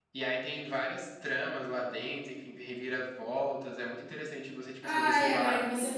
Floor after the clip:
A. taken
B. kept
A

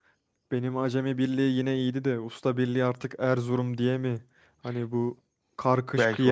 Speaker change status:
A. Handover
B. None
B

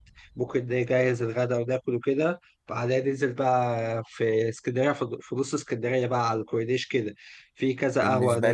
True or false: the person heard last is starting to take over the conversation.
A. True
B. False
B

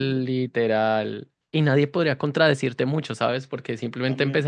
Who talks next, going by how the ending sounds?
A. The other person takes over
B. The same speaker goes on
B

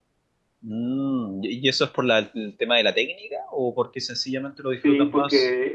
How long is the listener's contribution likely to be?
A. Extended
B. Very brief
A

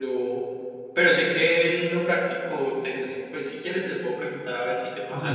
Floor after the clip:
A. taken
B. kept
A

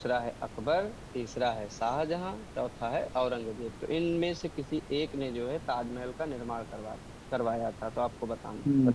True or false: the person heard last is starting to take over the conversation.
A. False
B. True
B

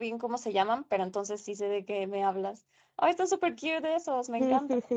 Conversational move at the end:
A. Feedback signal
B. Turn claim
B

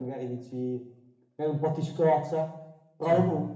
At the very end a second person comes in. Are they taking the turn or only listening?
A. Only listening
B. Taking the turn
A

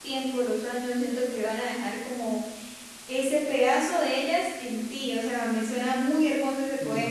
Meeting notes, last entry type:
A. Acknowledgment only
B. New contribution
B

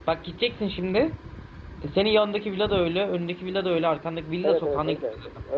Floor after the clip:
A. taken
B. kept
A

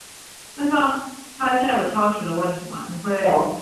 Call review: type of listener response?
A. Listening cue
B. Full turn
A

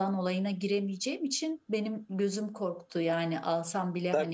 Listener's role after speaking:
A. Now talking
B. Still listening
A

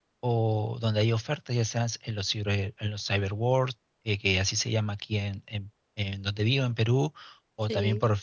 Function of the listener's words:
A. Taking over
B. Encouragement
B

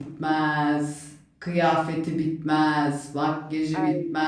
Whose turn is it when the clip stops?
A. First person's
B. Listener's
A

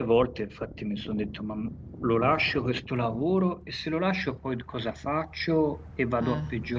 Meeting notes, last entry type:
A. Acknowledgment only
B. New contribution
A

